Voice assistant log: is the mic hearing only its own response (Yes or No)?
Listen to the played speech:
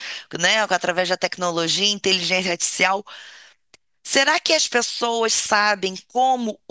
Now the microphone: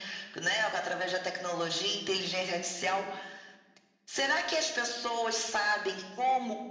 Yes